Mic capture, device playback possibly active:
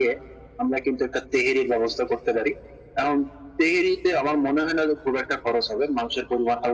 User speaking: No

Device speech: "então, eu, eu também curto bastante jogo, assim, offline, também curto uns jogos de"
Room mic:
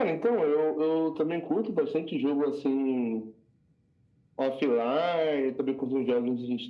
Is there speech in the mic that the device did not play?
No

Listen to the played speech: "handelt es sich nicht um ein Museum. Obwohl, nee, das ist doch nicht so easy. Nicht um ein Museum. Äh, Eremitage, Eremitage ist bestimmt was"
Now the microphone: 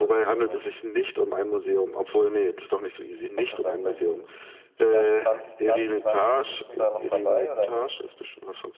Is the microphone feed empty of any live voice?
No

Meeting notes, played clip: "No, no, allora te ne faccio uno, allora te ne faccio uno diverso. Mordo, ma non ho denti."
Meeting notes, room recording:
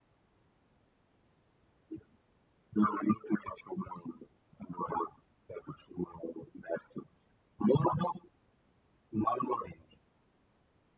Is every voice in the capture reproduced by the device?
Yes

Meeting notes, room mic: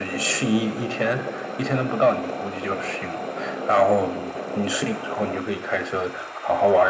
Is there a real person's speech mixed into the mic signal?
No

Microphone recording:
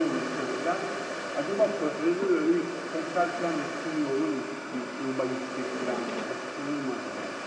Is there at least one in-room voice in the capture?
No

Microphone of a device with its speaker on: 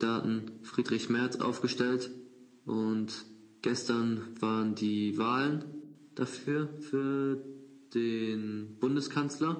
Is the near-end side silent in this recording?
Yes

